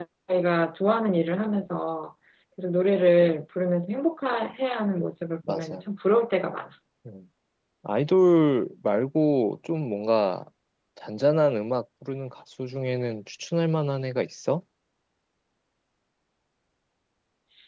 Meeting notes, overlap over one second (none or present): none